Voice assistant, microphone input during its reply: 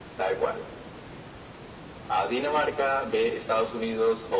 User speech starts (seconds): none

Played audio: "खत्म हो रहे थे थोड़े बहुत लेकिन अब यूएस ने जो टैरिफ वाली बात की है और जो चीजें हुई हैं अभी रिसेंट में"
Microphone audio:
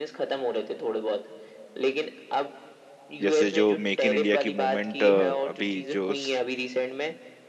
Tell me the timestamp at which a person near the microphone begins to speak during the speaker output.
3.2 s

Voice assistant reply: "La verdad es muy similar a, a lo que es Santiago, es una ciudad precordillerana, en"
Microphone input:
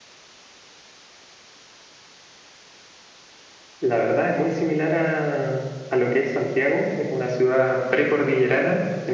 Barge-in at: none

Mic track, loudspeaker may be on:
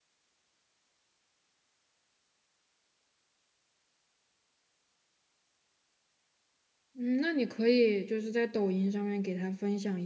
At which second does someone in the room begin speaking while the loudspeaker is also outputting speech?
6.9 s

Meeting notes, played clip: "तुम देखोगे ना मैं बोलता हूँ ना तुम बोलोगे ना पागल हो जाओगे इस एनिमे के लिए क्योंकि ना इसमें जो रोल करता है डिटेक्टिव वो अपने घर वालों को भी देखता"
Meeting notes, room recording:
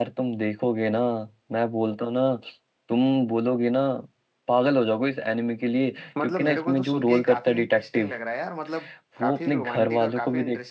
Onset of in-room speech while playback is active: 6.2 s

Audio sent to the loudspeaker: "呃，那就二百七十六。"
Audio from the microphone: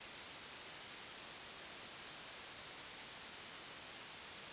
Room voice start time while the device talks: none

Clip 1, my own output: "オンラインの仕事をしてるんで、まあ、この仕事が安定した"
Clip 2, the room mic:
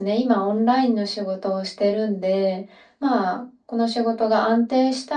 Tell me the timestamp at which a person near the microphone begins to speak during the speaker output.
none

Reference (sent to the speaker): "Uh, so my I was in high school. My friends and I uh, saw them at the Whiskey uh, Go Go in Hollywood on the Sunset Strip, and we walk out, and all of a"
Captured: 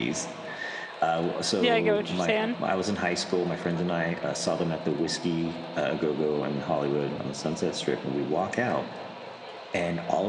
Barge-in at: 1.6 s

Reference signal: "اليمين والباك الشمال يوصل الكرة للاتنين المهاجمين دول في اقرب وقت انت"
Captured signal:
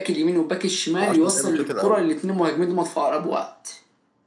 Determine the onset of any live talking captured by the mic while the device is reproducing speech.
1.0 s

